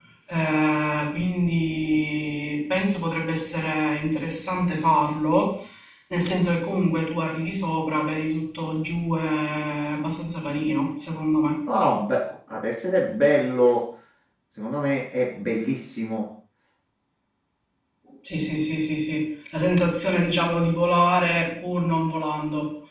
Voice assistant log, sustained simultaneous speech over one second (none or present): none